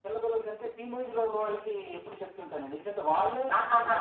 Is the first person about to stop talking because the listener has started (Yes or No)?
No